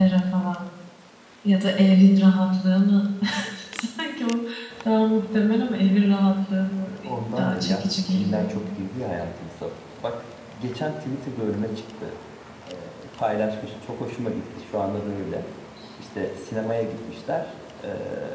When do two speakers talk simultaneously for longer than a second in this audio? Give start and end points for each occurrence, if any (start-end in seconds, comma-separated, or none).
7.4-8.6